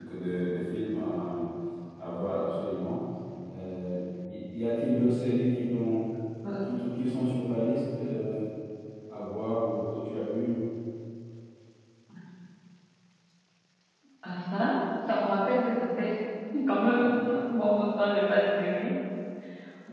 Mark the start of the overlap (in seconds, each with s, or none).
none